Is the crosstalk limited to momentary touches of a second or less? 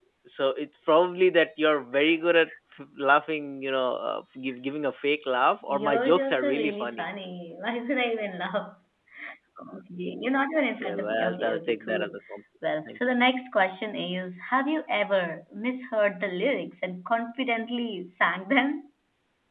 No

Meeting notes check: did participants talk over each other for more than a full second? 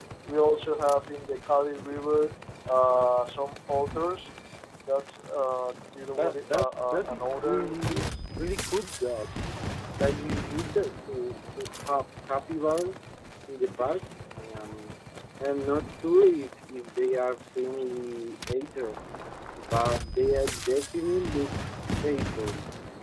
Yes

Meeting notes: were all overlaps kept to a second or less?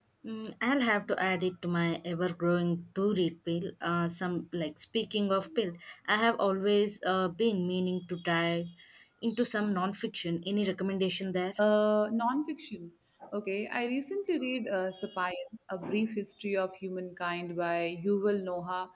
Yes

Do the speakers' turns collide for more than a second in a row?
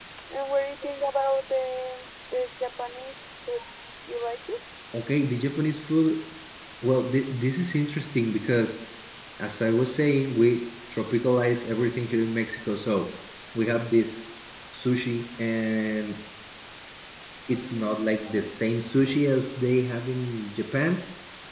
No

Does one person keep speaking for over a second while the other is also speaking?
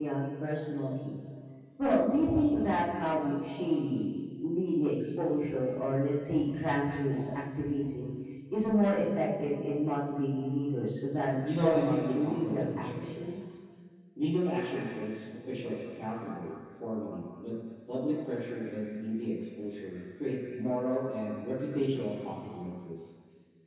Yes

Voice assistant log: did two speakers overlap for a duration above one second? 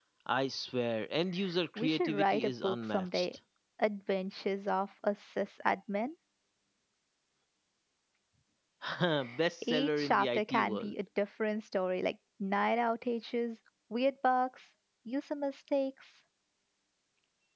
Yes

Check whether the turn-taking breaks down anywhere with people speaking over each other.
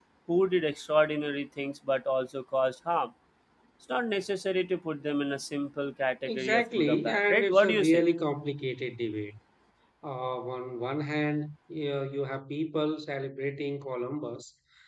Yes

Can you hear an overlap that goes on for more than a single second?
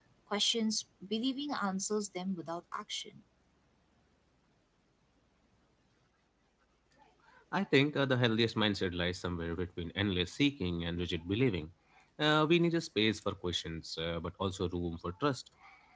No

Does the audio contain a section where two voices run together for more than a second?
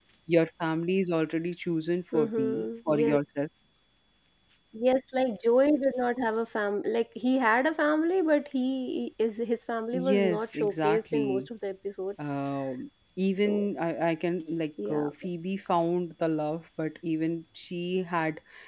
Yes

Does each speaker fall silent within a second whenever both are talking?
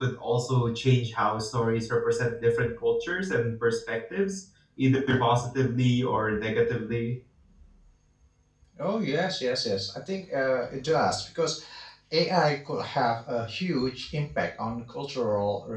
Yes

